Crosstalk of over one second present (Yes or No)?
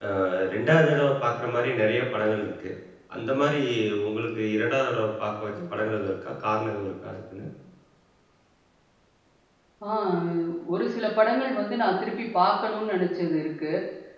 No